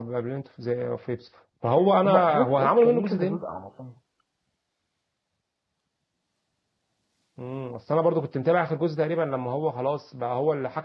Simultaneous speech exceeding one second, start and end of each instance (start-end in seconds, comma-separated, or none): 2.0-3.4